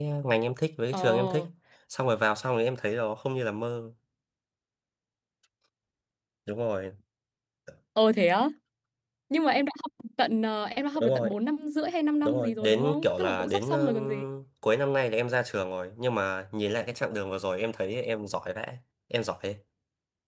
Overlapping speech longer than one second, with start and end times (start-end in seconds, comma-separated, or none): 12.2-14.2